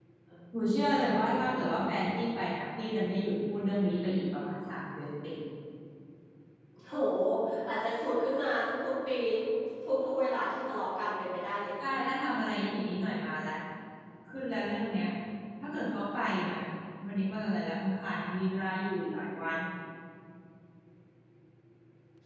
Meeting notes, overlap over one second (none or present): none